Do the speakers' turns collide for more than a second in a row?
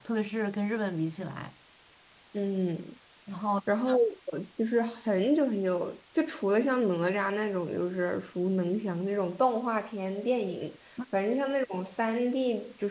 No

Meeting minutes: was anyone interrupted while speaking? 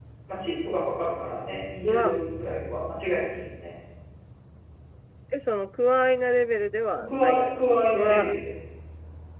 Yes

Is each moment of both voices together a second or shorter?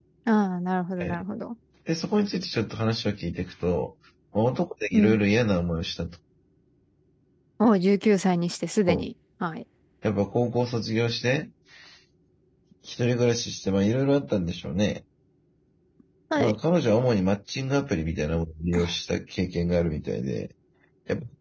Yes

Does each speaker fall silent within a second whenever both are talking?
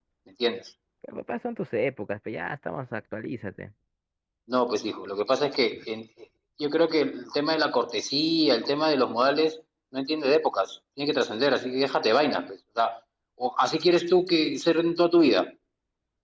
Yes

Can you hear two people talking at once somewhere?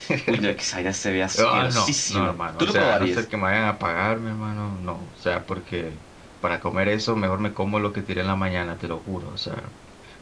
Yes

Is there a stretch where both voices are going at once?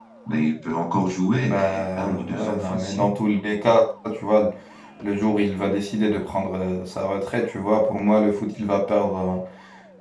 Yes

